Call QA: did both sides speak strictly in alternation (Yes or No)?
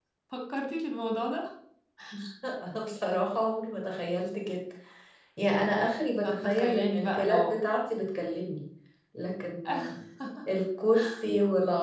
No